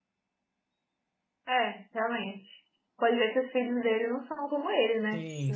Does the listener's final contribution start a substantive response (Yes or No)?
Yes